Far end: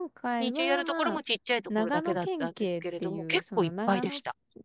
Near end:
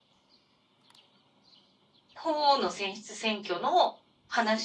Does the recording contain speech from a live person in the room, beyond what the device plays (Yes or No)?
Yes